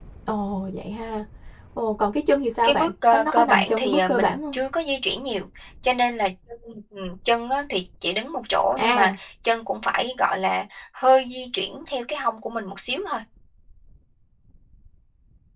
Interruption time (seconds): 2.6 s

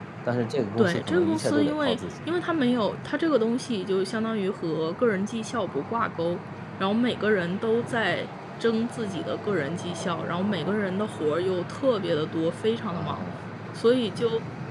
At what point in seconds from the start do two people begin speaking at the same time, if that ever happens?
0.8 s

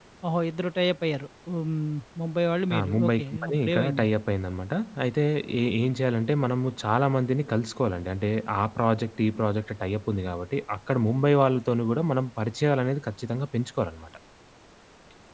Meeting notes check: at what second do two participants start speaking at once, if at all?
2.7 s

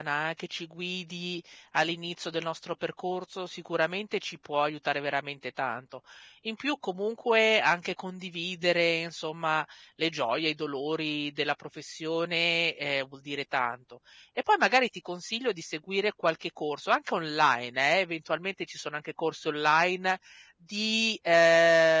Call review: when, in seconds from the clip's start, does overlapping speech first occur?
none

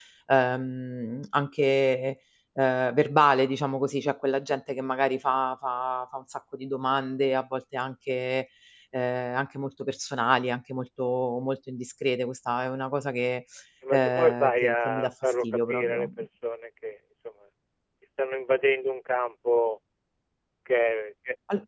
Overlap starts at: 13.9 s

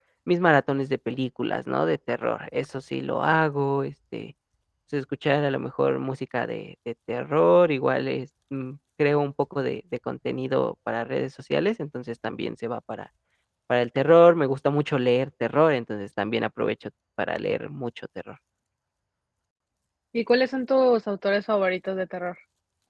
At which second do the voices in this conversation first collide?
none

